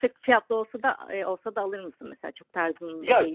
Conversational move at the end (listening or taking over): taking over